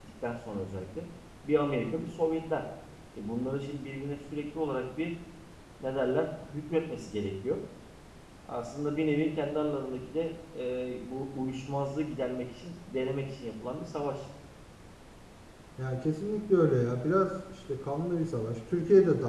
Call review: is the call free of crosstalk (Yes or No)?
Yes